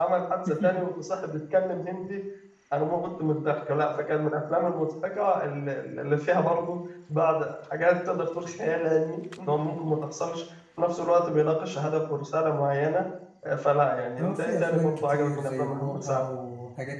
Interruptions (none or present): present